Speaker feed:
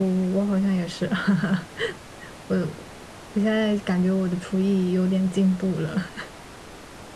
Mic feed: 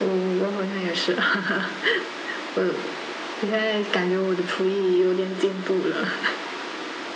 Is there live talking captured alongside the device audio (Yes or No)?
No